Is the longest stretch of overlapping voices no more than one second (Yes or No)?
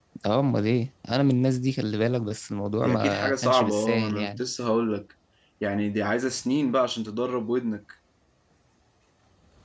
No